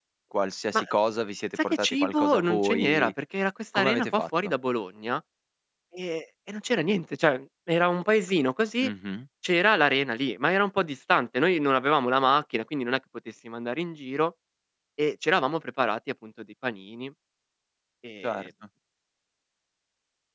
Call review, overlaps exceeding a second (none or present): present